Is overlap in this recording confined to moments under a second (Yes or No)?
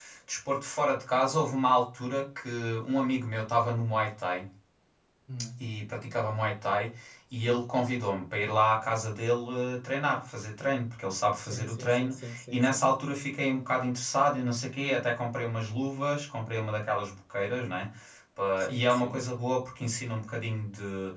No